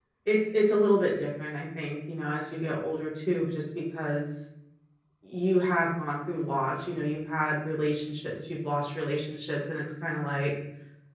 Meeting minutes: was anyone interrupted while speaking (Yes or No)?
No